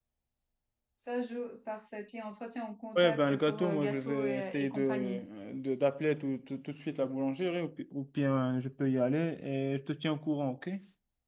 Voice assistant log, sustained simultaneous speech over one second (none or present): present